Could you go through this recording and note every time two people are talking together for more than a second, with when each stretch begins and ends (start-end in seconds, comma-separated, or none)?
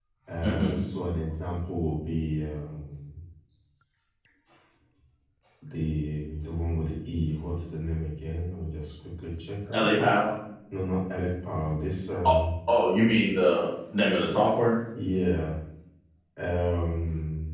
none